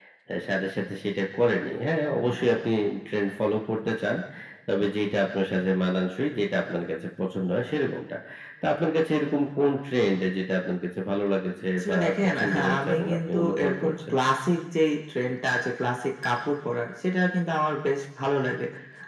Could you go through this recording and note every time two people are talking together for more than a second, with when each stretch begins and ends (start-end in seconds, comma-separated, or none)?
11.8-14.1